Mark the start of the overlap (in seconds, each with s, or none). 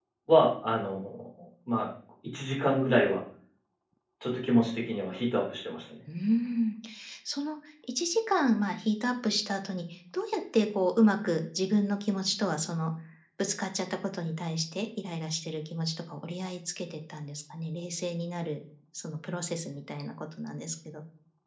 none